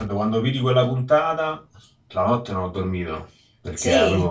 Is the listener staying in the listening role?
Yes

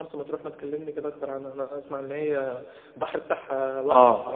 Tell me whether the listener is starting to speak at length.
Yes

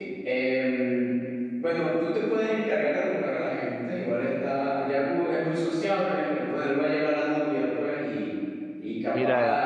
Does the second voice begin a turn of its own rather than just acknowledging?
Yes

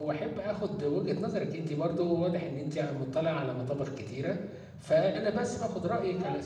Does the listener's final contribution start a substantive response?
Yes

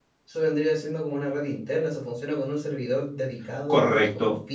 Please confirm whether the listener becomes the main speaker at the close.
Yes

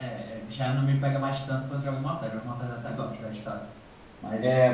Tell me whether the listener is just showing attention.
No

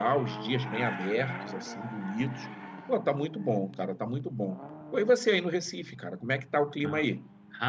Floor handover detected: Yes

